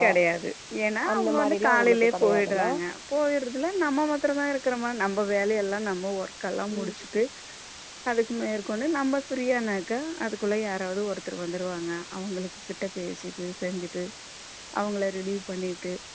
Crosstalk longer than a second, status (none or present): present